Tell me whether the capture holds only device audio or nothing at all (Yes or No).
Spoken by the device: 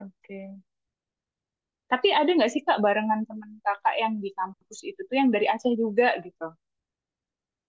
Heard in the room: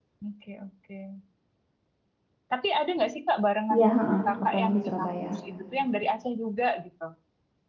No